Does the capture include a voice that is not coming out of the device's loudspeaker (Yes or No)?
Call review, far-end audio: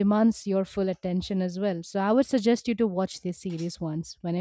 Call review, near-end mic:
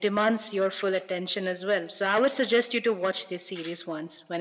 No